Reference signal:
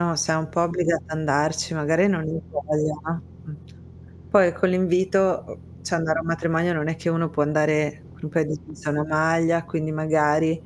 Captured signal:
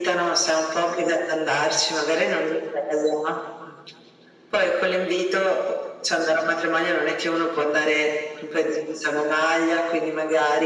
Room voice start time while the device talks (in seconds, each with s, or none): none